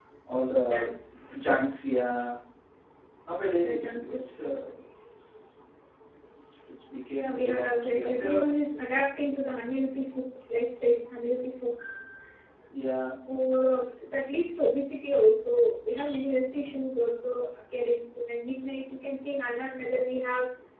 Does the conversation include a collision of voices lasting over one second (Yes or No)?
Yes